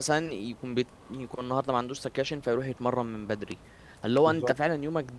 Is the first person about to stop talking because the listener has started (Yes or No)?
No